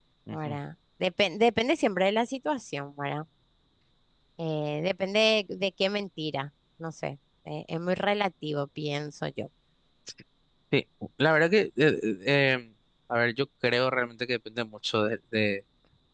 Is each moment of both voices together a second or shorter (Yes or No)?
Yes